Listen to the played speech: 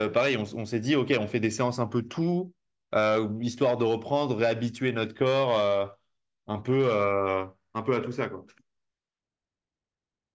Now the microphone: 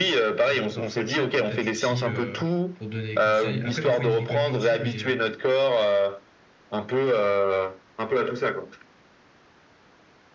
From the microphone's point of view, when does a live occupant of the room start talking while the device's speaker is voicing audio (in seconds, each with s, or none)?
0.5 s